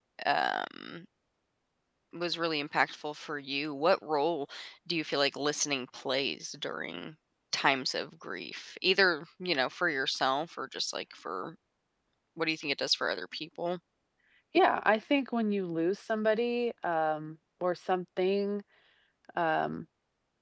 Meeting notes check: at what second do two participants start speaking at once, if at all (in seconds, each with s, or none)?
none